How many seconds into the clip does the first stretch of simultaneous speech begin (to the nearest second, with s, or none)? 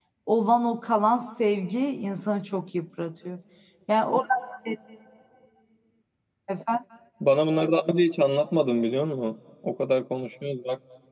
none